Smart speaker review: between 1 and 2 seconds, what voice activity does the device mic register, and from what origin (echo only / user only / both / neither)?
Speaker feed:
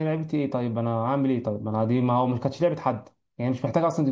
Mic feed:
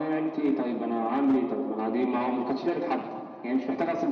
echo only